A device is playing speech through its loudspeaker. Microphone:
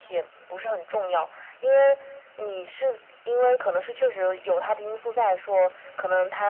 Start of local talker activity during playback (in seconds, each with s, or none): none